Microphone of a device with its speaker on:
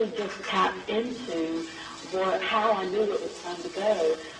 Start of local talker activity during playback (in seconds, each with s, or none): none